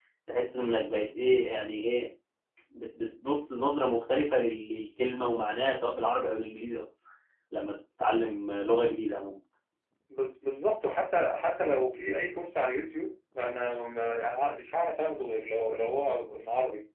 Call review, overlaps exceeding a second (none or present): none